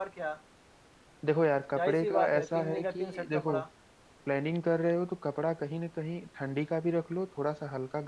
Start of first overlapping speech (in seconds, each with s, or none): 1.8 s